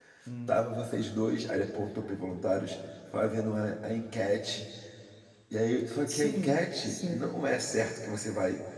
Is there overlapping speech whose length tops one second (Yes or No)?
Yes